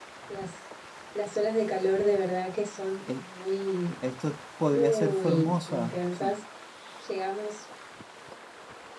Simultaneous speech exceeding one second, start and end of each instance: 4.7-6.3

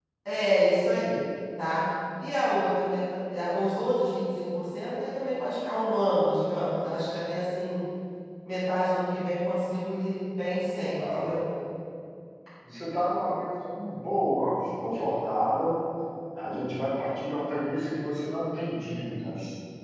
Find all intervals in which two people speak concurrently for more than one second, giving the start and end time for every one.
none

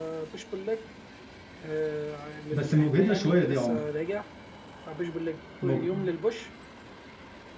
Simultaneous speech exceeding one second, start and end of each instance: 2.5-3.8

